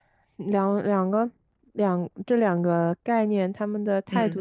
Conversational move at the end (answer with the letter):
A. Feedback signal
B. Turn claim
A